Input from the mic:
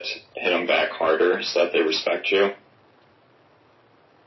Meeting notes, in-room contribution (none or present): none